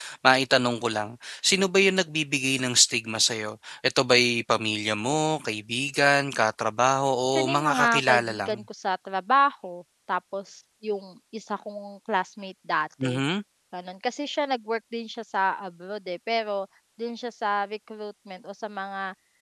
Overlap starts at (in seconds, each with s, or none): 7.3 s